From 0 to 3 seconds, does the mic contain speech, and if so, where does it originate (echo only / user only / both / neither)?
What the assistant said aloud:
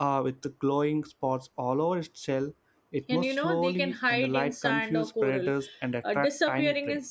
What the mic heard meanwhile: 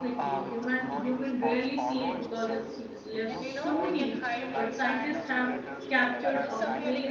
both